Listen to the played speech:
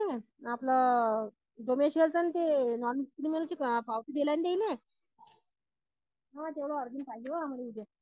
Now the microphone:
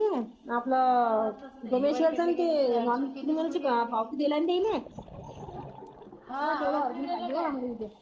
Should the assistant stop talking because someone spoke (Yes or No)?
Yes